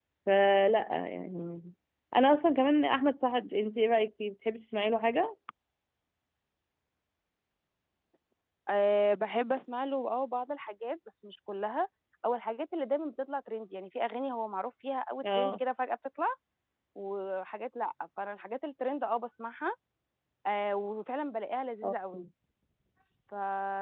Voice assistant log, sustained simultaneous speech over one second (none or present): none